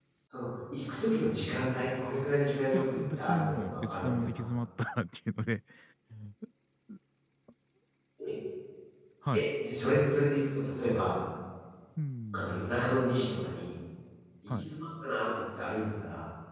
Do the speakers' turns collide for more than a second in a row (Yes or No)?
Yes